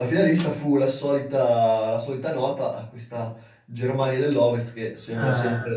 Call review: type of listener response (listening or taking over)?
listening